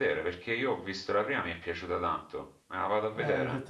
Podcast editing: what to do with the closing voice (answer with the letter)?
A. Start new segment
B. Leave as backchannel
A